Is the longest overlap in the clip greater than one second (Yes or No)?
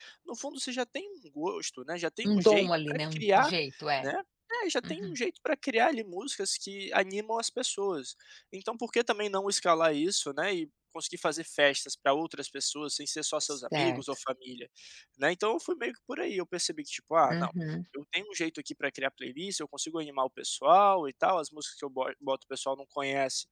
Yes